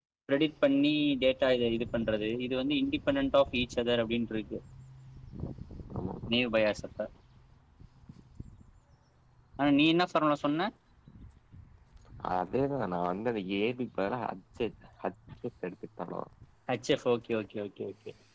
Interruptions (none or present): none